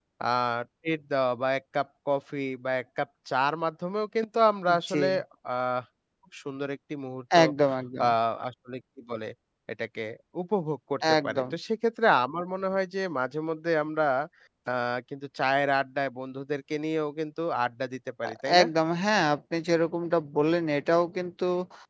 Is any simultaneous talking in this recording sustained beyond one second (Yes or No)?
No